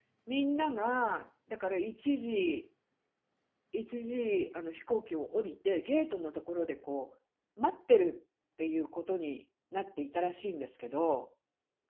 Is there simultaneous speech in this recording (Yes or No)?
No